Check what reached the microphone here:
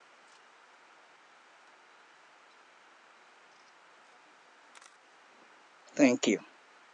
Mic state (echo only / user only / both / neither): user only